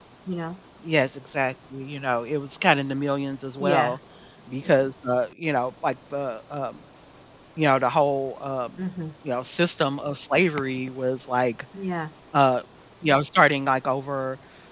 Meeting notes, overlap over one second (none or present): none